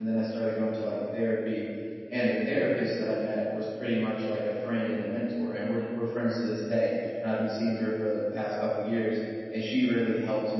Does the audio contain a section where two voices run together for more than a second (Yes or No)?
No